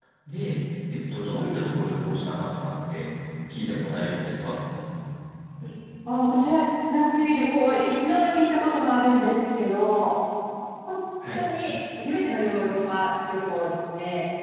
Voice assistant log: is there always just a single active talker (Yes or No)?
Yes